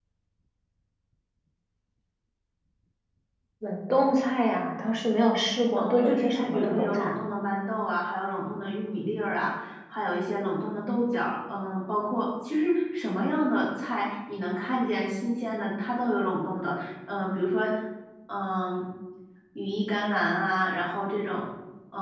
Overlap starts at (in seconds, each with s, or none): 5.8 s